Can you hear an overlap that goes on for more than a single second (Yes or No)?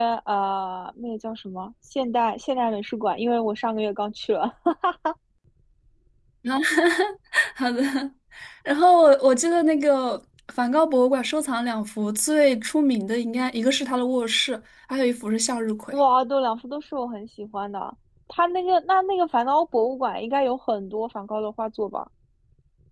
No